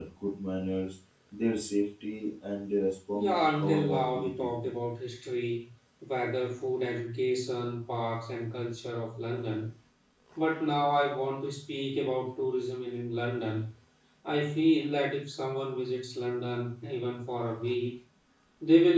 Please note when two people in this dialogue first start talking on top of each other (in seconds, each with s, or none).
3.1 s